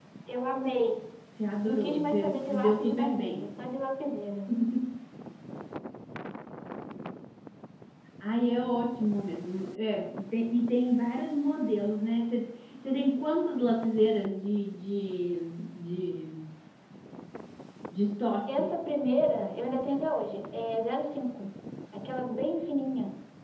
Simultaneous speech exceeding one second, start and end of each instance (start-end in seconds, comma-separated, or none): 1.6-3.4